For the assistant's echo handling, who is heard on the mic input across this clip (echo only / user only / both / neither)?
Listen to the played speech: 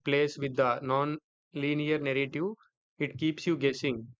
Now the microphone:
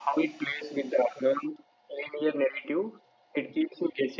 echo only